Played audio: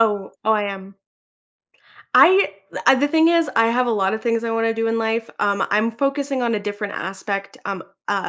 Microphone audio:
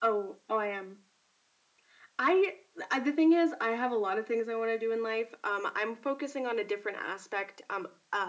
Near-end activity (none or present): none